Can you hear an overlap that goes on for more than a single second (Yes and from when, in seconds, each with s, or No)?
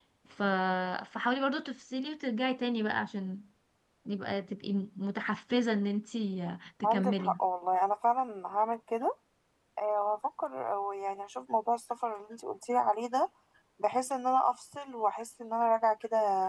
No